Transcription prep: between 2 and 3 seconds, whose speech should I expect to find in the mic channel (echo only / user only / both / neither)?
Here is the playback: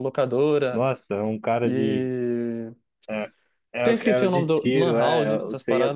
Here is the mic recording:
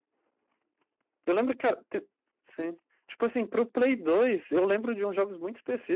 user only